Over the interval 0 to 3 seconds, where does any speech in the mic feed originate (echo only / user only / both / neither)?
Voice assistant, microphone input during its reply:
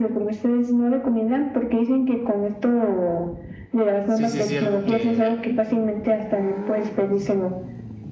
echo only